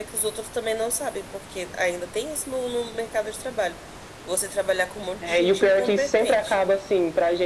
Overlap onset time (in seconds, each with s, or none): 5.2 s